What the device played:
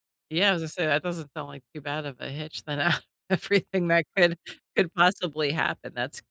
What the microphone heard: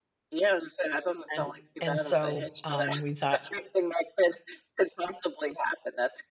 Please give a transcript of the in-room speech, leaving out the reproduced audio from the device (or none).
and and so, um, we thought,